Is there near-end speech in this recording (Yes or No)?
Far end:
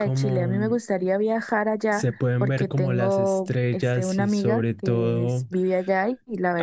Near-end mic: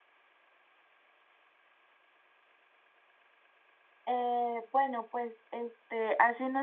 Yes